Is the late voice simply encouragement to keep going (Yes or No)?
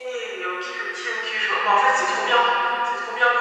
Yes